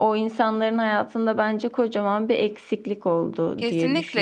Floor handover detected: Yes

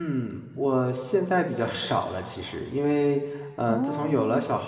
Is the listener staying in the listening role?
Yes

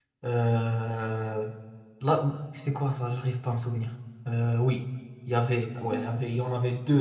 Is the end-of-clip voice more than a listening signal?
No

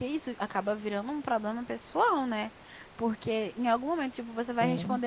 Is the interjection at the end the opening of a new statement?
No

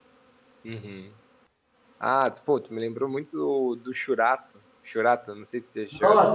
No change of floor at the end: No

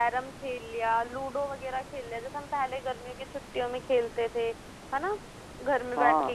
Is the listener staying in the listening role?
Yes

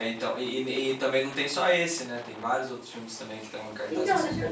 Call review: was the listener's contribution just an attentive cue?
No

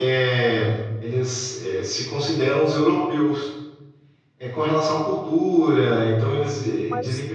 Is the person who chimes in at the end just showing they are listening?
No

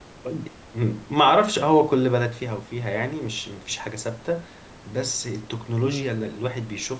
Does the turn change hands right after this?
No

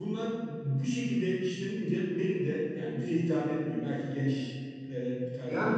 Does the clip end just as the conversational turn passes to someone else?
Yes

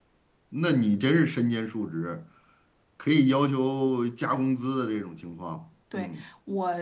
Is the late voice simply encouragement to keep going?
No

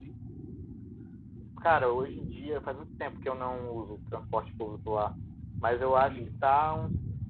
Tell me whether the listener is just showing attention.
Yes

